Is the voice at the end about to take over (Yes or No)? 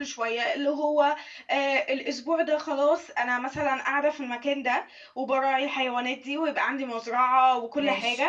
No